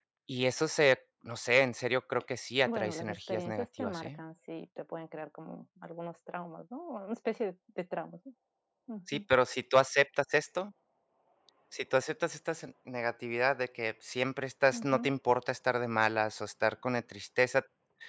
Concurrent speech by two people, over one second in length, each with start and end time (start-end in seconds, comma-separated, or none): 2.7-4.2